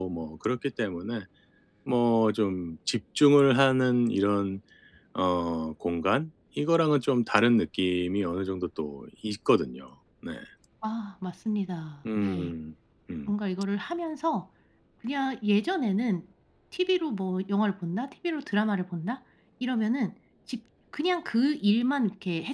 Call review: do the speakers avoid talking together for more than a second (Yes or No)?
Yes